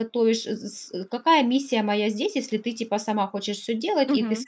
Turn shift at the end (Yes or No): Yes